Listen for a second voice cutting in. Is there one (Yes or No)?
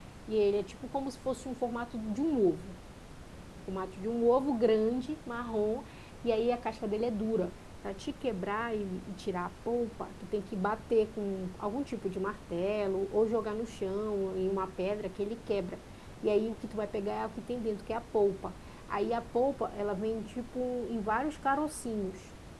No